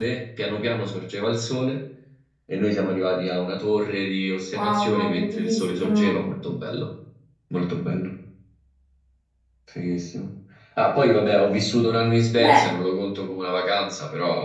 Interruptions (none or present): present